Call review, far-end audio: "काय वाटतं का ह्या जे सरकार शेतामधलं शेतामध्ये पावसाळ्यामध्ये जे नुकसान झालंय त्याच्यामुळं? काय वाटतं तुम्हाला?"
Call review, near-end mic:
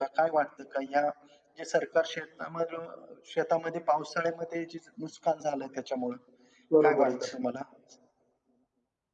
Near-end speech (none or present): present